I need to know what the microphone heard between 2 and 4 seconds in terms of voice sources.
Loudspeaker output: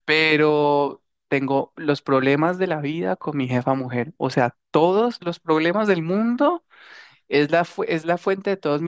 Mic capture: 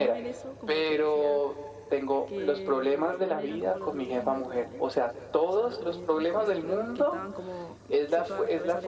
both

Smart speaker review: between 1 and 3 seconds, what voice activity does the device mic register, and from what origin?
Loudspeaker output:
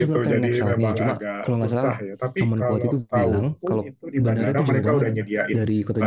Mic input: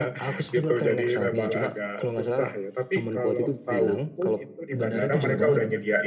echo only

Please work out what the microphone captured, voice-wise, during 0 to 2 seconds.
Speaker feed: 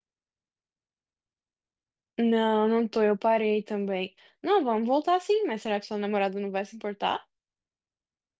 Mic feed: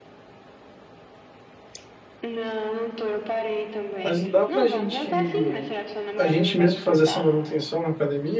neither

